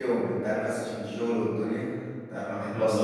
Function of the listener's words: taking over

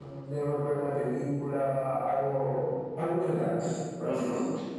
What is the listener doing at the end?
taking over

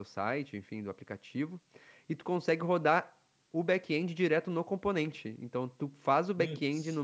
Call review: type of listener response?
listening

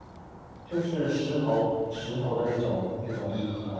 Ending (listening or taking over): taking over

